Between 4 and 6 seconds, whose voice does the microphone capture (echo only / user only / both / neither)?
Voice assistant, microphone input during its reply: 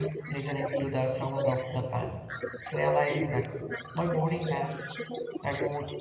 both